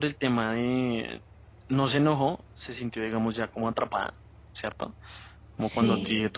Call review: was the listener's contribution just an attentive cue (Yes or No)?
Yes